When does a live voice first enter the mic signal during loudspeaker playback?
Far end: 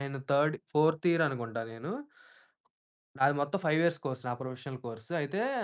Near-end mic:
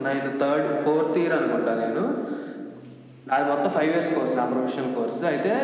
none

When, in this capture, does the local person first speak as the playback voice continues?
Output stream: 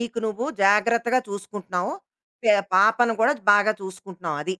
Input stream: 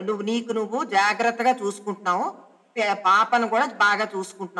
none

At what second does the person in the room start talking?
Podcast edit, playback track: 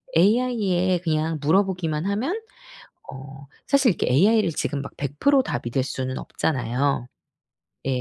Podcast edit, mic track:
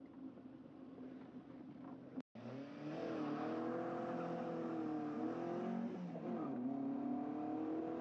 none

